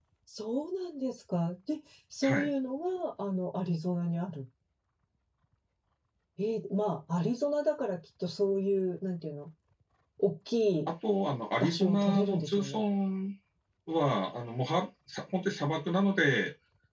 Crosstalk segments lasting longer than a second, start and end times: 11.6-12.8

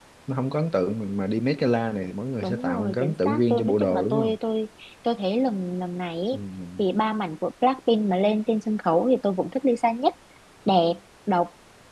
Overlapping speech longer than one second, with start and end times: 2.4-4.4

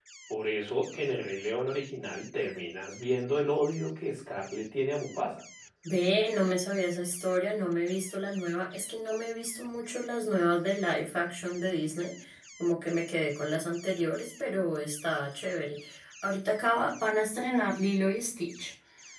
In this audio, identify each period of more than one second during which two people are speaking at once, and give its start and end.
none

